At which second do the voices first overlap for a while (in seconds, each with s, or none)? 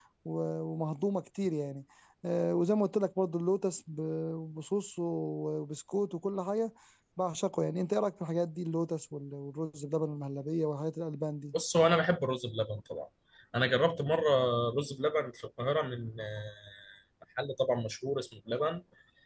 none